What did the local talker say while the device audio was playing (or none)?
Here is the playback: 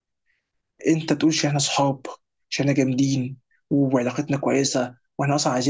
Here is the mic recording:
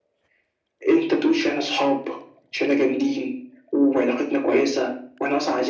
none